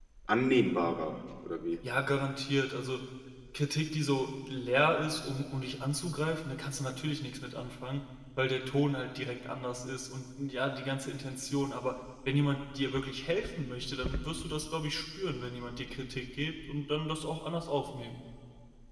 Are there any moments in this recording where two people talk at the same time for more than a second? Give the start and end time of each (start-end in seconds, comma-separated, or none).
none